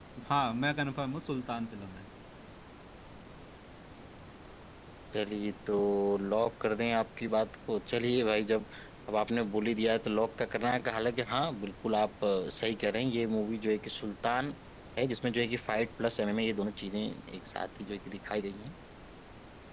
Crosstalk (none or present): none